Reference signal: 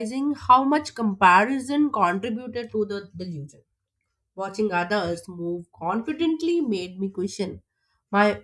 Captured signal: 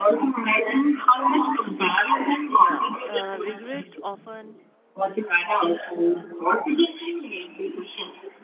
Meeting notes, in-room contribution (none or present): present